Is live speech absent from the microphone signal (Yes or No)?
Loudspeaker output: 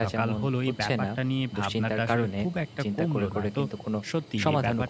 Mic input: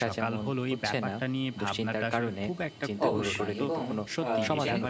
No